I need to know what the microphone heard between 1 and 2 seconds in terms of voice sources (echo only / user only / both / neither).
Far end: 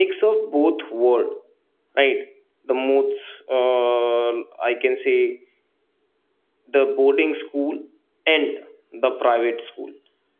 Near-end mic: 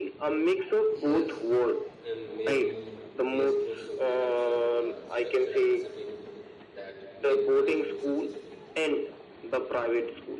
both